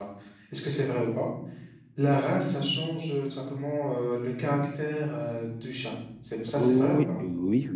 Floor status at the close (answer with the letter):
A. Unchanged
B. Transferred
B